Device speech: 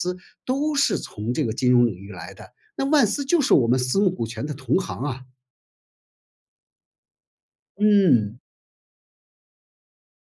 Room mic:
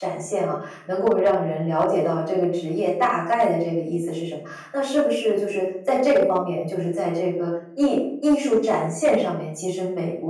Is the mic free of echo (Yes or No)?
Yes